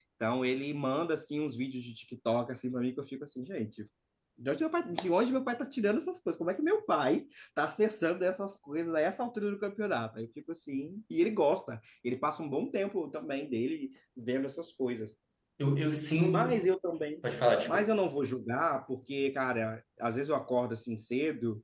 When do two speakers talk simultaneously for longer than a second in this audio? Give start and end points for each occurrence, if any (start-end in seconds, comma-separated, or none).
none